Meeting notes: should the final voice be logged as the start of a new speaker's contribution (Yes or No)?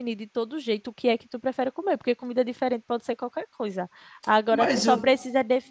No